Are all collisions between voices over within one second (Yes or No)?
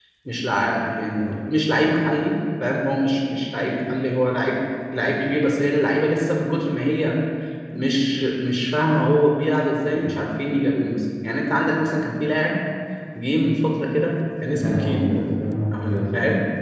Yes